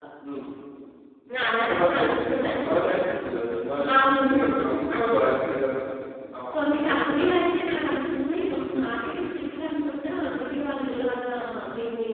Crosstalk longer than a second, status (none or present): present